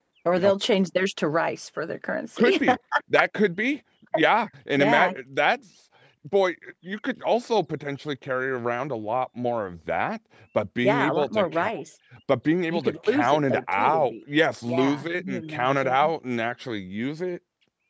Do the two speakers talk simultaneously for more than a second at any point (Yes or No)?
Yes